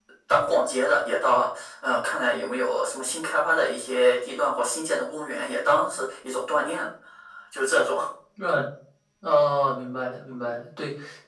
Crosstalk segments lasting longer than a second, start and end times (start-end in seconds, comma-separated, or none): none